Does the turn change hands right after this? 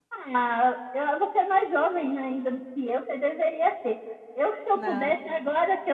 No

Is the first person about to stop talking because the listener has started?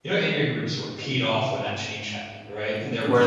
No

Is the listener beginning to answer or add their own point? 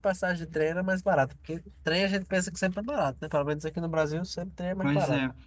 Yes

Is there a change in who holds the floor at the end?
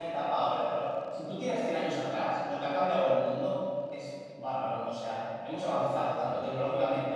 No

